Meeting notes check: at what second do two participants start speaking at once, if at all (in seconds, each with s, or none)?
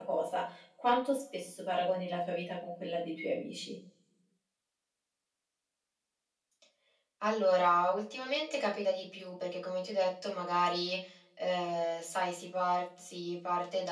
none